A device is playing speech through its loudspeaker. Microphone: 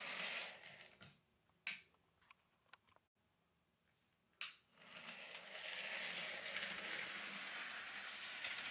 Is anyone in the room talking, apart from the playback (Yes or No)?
No